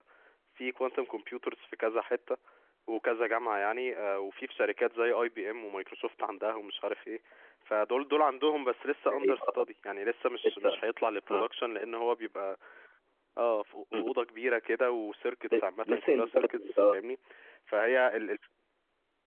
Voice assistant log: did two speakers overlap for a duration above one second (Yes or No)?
Yes